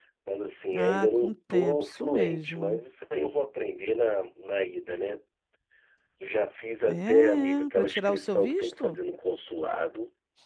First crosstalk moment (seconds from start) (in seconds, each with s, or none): 0.7 s